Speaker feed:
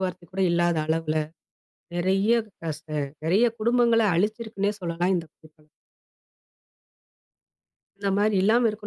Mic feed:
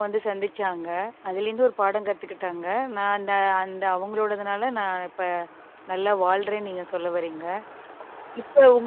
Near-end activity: present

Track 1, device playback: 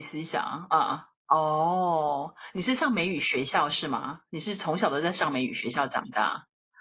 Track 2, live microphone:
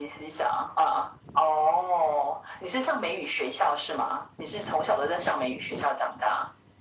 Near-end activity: none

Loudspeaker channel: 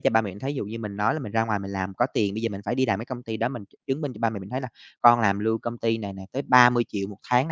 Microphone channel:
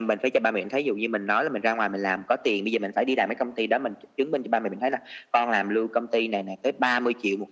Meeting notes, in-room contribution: none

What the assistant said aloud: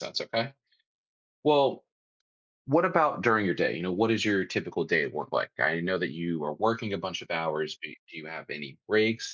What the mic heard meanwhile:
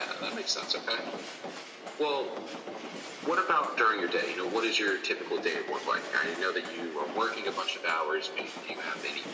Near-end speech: none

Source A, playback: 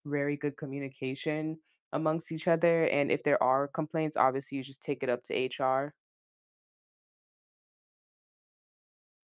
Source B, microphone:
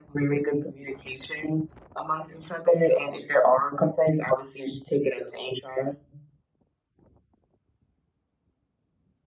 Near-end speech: none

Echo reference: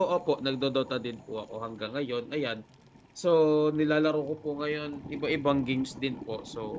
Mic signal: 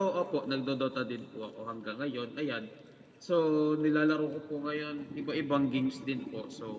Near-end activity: none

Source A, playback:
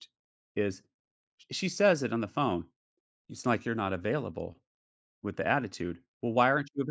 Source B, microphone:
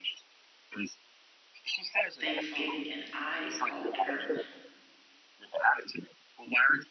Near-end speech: present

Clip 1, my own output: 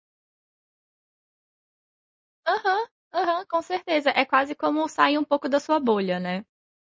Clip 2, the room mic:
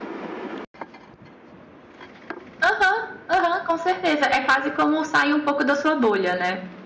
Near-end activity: none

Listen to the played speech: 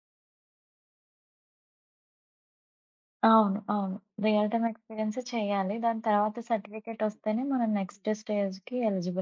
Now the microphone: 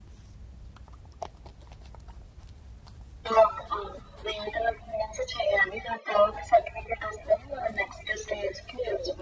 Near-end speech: none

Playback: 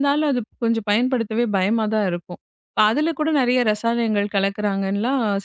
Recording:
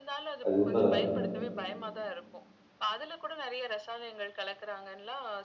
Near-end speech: present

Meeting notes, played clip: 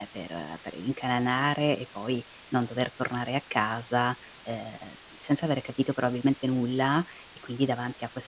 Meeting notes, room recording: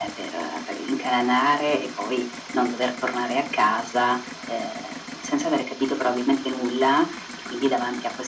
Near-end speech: none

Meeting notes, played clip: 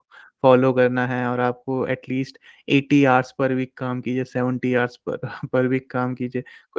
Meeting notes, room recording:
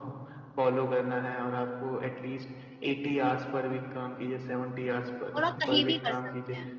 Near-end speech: present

